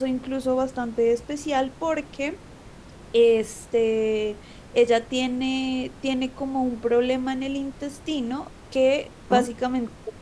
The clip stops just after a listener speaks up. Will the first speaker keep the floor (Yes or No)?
Yes